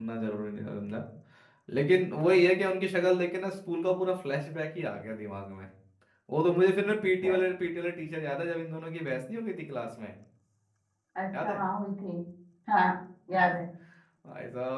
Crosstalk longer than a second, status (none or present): none